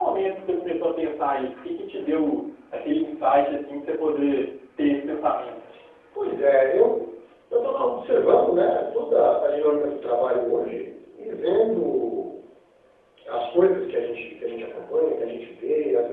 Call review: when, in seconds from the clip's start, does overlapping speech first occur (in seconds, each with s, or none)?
none